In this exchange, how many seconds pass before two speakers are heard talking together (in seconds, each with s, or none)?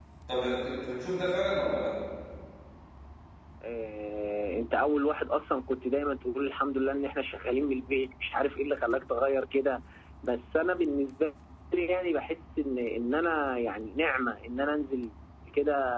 none